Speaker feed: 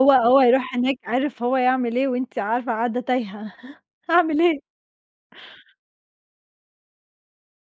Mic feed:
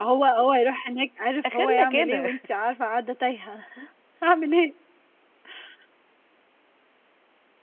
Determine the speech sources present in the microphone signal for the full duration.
both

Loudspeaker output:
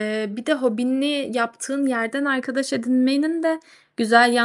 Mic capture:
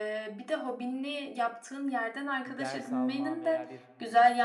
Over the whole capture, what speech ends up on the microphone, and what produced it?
both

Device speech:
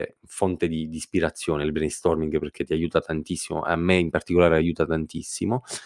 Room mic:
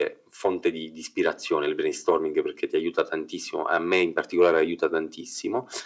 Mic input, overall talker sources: echo only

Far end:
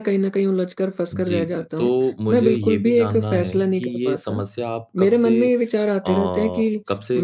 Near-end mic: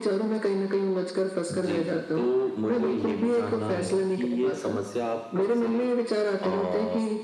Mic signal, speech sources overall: echo only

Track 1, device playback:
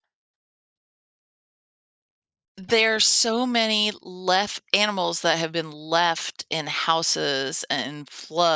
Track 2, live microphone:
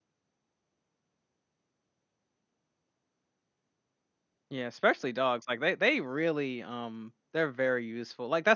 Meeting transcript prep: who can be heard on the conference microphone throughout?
user only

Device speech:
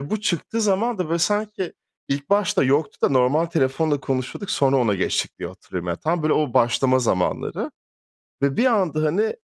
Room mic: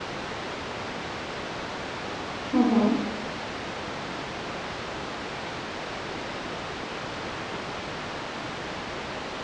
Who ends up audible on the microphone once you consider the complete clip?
user only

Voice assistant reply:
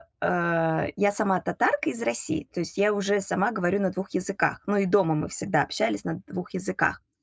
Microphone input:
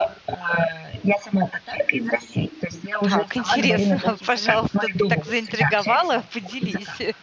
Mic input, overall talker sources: both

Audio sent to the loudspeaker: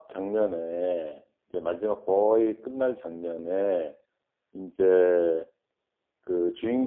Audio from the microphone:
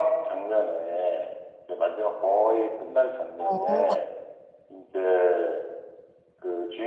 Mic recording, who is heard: both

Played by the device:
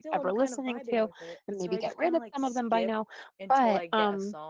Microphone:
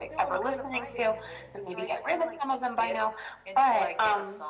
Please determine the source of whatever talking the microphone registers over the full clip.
echo only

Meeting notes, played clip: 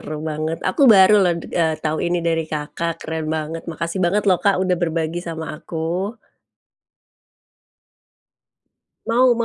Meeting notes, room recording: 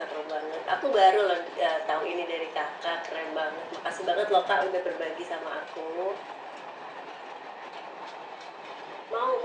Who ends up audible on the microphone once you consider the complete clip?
echo only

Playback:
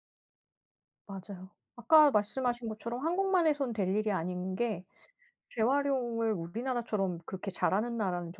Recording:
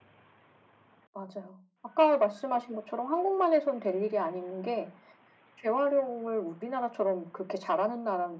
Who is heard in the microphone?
echo only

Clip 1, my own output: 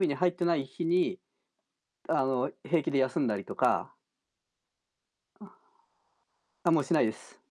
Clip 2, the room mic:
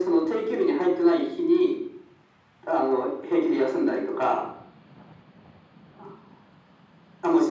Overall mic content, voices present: echo only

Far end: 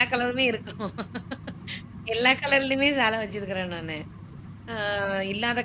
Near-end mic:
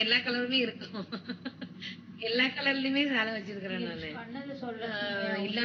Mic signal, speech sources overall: both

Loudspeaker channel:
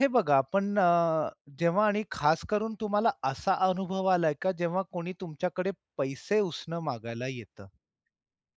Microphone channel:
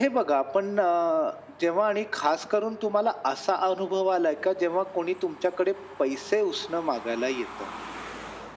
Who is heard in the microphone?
echo only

